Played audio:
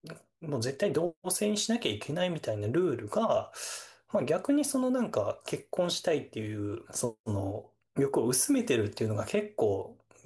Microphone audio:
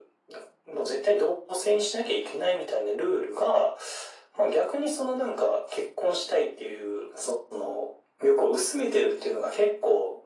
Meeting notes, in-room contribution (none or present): none